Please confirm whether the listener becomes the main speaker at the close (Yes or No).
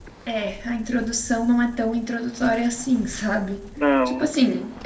No